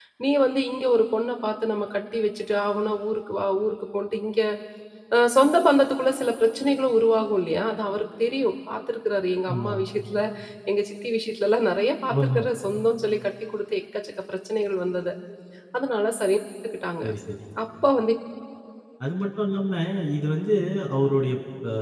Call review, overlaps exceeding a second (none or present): none